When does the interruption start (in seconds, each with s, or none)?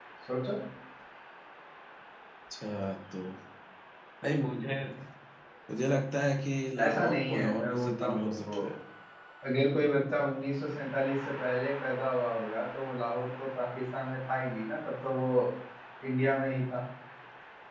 6.8 s